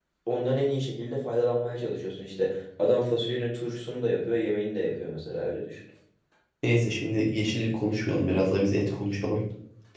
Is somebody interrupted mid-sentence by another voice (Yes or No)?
No